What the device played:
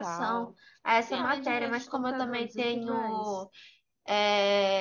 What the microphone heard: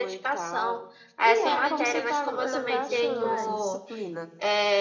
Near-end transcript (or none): E é como você tá, você tá achando dessa disciplina?